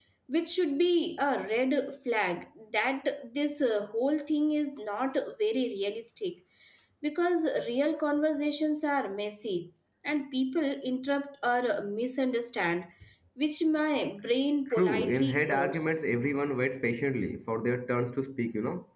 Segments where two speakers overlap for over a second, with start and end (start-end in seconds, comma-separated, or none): 14.7-16.0